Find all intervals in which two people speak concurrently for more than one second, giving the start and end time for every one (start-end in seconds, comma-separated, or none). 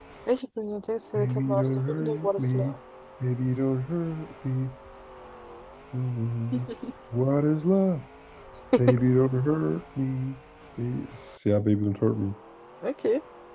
1.1-2.8